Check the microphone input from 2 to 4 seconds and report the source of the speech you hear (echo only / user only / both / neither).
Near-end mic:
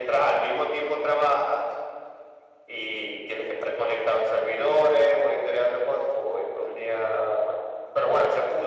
echo only